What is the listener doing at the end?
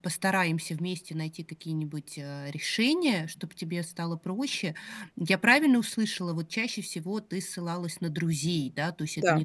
listening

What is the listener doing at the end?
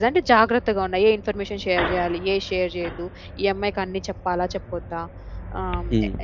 listening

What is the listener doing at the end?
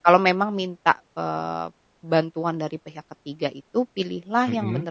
listening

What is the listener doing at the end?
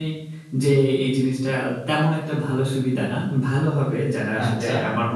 listening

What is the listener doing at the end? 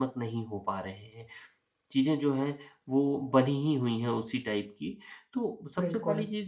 listening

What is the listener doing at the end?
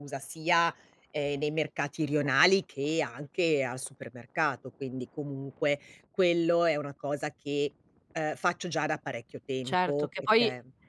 taking over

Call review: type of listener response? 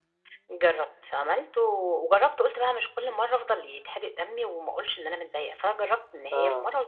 listening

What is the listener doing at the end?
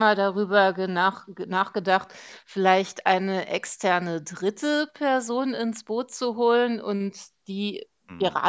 listening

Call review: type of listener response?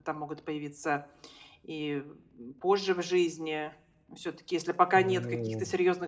listening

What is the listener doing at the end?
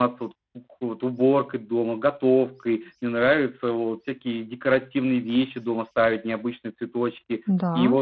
listening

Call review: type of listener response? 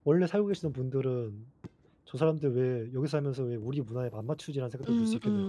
taking over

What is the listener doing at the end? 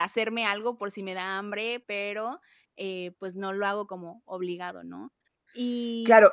taking over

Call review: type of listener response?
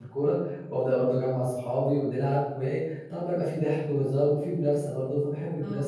taking over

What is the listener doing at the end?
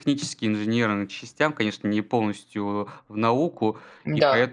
listening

